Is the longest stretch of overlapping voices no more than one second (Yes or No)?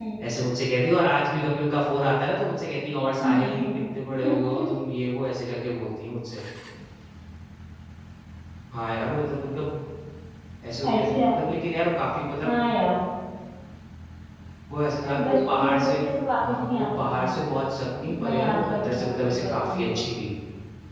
No